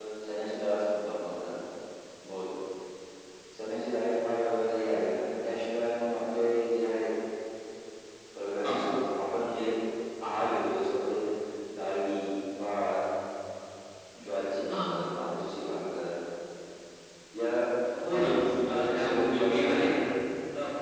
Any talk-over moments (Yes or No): Yes